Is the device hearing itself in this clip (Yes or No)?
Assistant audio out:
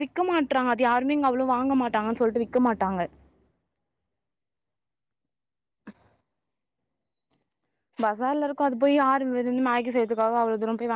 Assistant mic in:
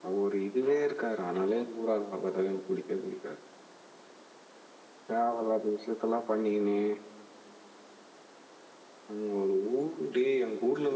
No